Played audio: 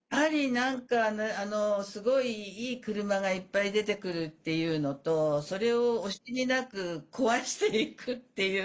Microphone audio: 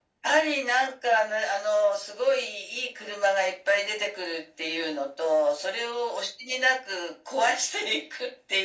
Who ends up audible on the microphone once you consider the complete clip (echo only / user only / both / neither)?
echo only